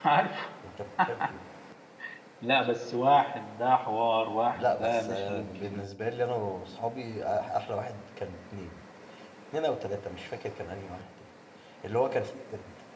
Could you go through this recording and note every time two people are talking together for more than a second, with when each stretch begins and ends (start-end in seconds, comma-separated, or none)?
4.5-5.9